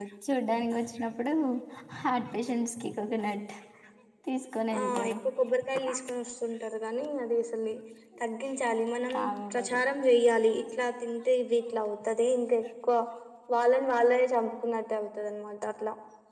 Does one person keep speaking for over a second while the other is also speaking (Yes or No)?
No